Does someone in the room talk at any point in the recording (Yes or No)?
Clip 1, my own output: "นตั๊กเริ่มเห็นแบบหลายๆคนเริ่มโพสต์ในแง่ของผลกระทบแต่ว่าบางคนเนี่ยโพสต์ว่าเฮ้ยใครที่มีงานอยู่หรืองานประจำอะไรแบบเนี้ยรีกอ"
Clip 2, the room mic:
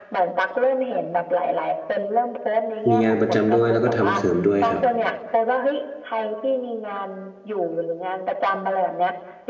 Yes